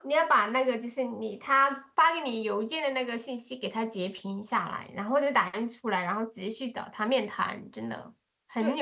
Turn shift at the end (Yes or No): Yes